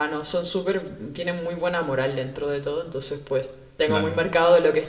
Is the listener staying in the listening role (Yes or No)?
Yes